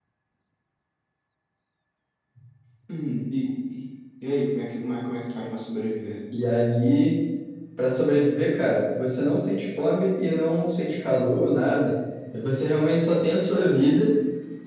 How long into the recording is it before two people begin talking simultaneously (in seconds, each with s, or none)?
none